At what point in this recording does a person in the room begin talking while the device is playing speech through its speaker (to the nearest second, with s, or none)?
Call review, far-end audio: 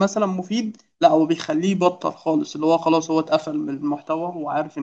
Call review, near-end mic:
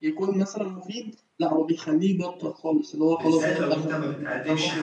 3 s